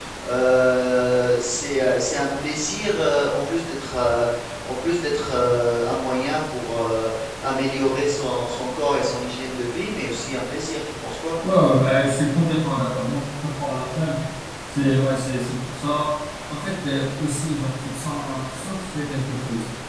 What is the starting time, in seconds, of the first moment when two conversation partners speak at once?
none

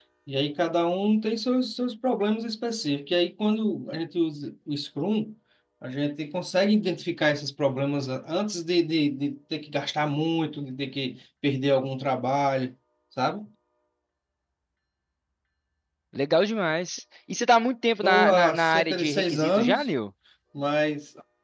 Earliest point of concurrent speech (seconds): 18.0 s

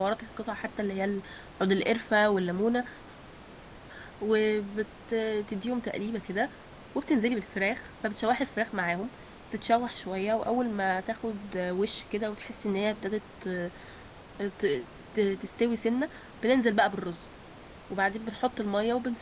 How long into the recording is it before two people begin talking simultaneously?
none

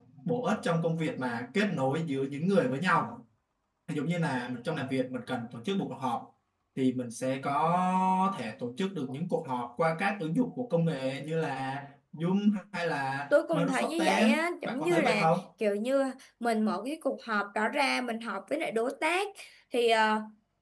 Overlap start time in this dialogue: 13.3 s

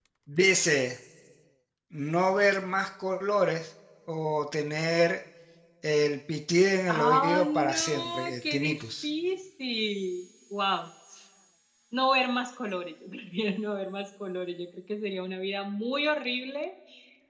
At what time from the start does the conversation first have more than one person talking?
6.9 s

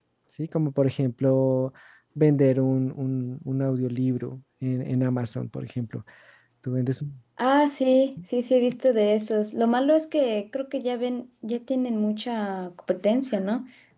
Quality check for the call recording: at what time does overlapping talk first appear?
none

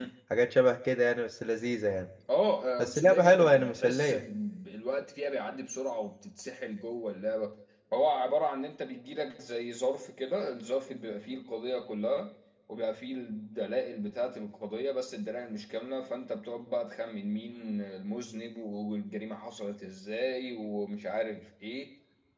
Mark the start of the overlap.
2.8 s

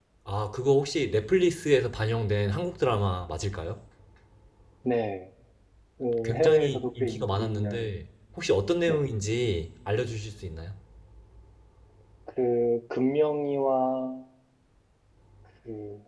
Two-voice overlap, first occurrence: 6.2 s

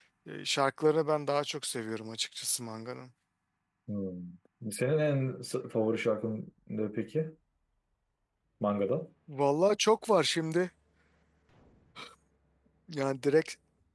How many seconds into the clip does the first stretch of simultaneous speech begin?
none

